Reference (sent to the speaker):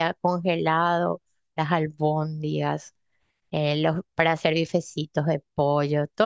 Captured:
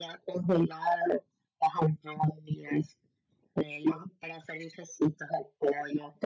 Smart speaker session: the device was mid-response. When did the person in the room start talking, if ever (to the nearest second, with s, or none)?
none